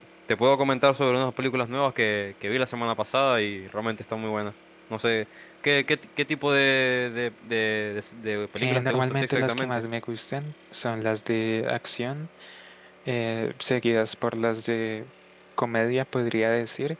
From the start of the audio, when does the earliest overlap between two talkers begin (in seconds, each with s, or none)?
8.6 s